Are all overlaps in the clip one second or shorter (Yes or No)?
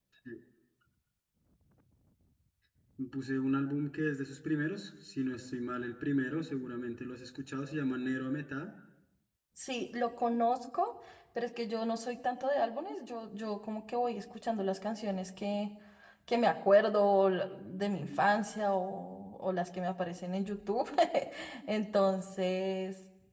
Yes